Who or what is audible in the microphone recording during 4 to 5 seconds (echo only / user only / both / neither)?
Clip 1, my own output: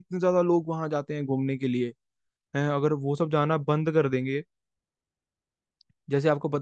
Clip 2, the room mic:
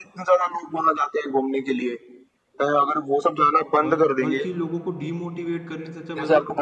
both